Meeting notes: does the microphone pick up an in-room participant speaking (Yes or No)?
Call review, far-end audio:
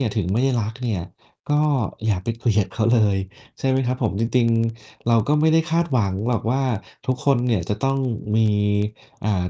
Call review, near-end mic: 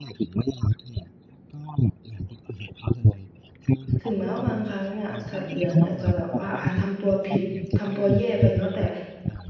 Yes